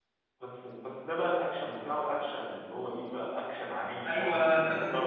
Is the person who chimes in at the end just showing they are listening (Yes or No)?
No